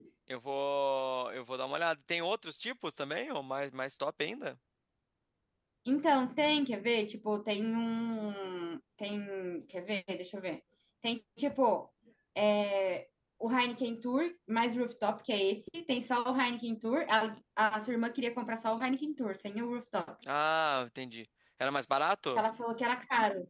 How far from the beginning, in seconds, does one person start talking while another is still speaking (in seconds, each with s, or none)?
none